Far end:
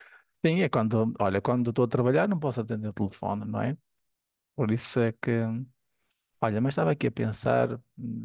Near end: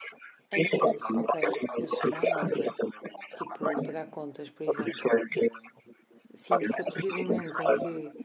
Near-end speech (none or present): present